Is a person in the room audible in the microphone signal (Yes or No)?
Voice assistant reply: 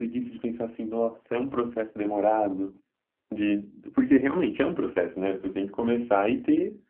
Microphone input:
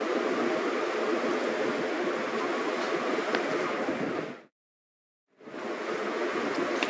No